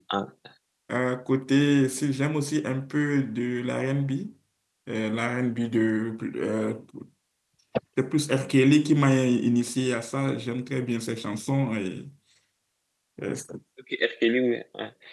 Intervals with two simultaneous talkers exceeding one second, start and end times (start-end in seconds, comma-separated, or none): none